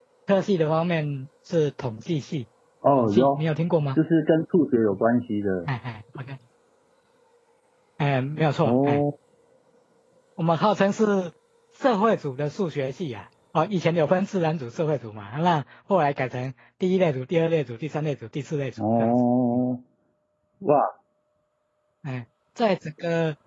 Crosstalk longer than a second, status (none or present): none